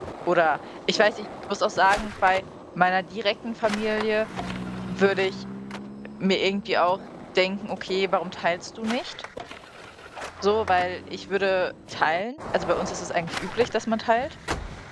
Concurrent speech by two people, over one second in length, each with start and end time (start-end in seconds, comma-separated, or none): none